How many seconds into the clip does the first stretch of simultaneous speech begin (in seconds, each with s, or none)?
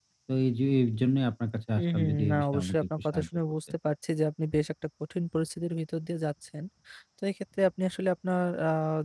1.8 s